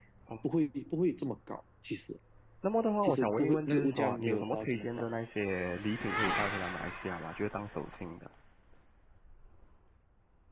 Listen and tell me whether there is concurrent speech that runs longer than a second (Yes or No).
Yes